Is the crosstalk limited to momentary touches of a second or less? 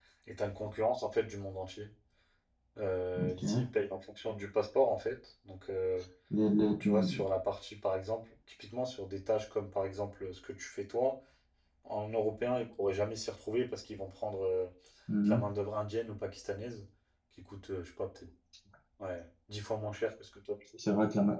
Yes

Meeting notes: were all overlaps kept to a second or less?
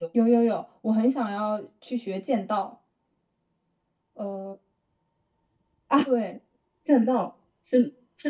Yes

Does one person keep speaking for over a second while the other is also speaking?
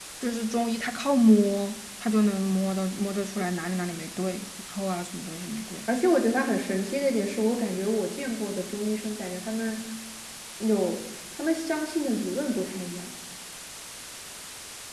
No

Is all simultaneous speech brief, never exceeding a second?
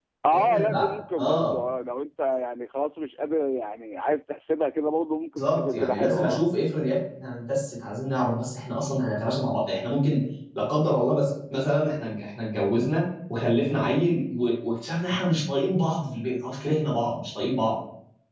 No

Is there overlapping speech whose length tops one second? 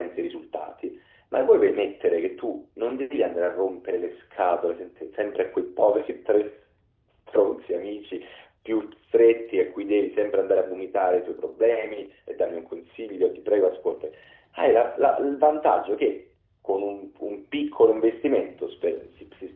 No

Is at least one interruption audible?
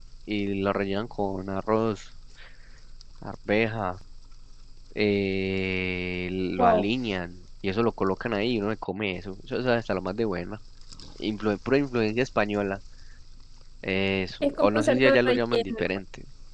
Yes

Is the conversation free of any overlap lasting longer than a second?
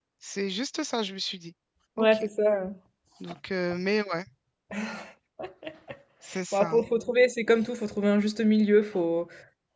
Yes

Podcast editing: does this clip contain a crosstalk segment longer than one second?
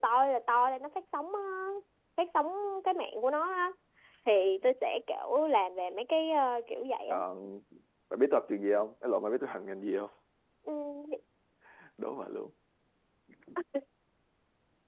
No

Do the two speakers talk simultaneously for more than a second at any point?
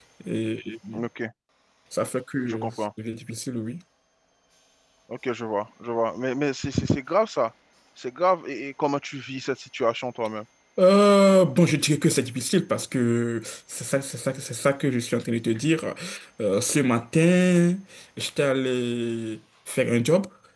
No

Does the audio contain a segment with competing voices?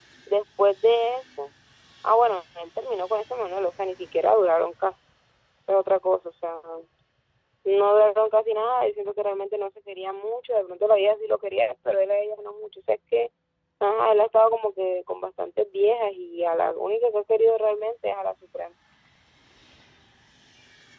No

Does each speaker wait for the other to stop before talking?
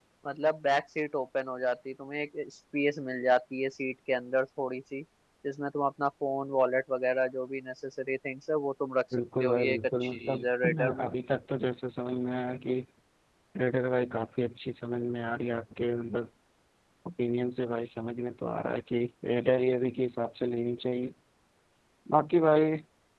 No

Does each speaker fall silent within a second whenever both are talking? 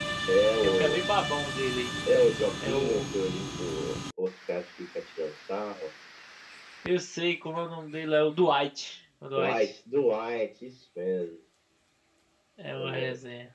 Yes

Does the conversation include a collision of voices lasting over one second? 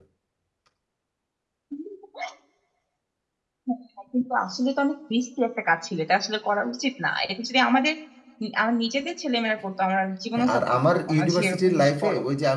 Yes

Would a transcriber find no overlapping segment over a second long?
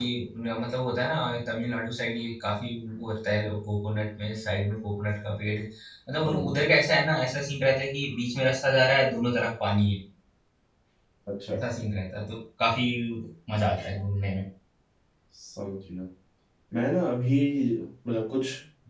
Yes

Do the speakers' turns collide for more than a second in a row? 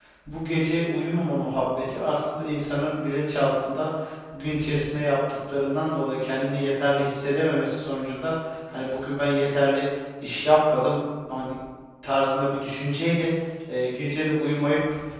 No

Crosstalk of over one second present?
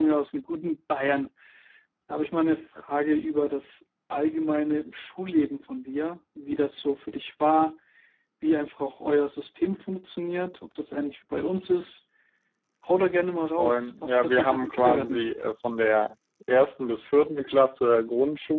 Yes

